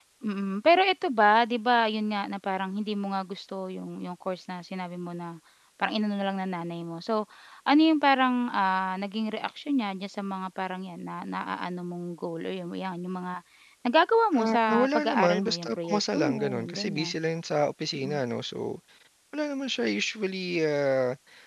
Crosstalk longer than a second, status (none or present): present